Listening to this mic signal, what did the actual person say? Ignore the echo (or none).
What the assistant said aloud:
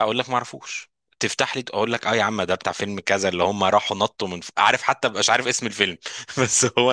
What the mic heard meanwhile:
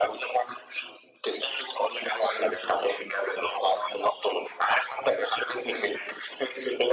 none